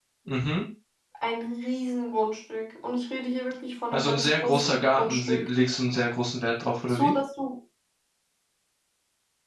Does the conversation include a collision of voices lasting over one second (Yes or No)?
Yes